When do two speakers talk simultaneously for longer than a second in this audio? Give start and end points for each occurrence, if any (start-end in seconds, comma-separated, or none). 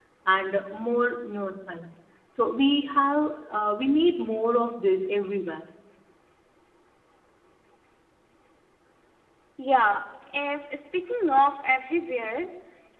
none